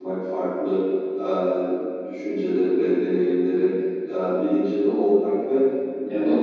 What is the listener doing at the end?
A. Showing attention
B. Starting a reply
A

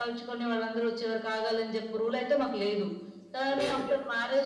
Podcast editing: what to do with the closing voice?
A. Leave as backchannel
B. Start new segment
A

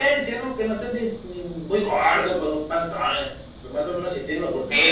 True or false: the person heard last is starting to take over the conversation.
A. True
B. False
B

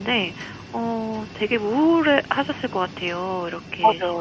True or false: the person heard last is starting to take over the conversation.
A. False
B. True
B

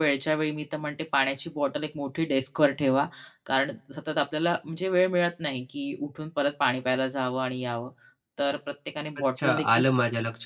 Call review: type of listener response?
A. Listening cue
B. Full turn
B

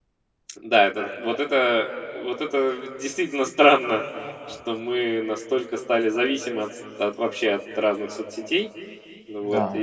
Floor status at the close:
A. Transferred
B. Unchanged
A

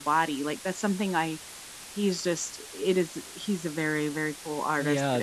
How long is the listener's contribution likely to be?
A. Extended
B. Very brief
A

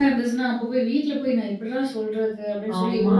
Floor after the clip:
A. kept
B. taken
A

